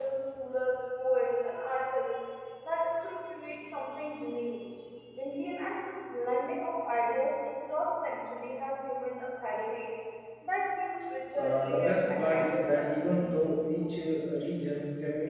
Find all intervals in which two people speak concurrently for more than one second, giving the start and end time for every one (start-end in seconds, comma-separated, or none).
11.3-13.9